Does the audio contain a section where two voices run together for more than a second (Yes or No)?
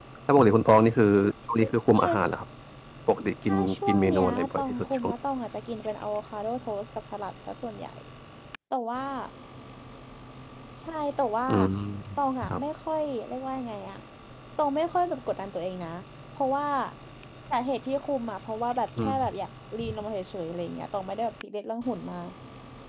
Yes